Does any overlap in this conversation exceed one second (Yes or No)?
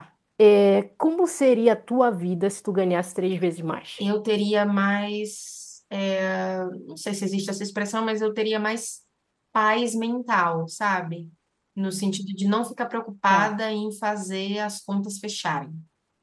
No